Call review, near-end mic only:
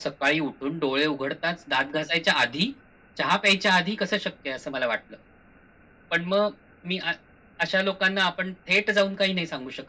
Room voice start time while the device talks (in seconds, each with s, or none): none